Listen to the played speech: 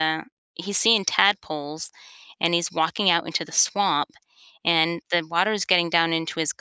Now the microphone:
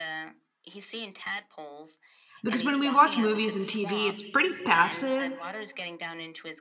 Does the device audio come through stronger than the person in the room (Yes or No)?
No